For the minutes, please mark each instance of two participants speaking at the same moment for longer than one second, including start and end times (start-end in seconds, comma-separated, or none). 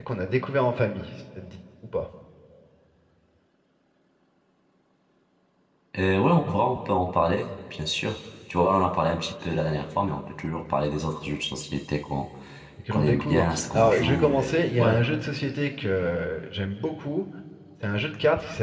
12.9-15.0